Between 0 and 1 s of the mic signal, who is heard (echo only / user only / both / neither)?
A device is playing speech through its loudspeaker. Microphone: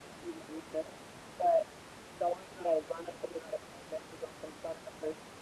echo only